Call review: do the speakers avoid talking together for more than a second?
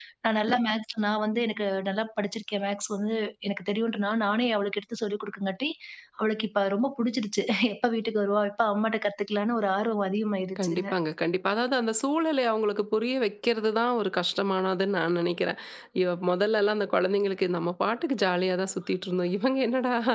Yes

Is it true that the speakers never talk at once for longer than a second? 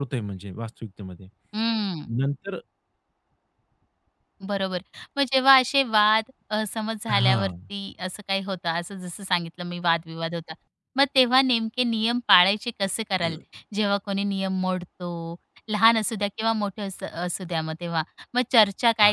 Yes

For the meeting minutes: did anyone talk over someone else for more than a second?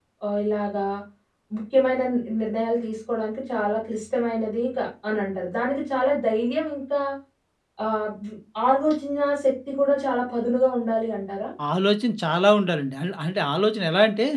No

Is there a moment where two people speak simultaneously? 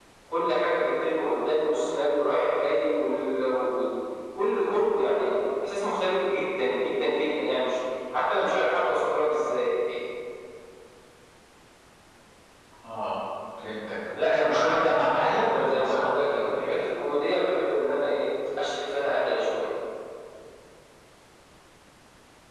Yes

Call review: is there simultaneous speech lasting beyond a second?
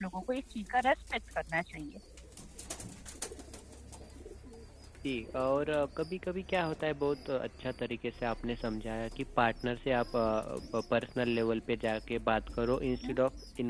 No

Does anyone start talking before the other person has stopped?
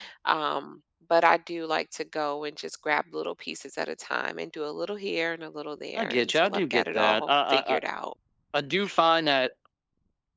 Yes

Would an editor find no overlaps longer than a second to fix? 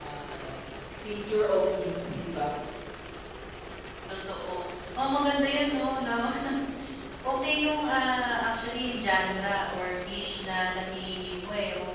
Yes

